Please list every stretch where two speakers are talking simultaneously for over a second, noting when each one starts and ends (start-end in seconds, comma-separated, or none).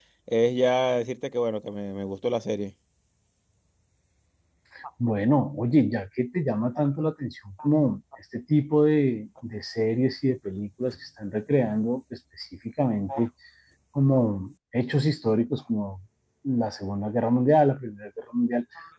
none